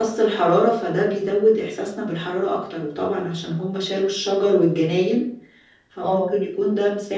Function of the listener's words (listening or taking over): listening